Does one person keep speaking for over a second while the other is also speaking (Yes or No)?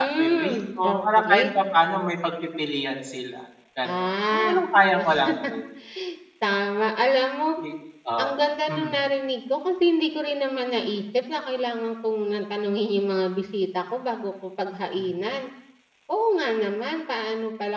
Yes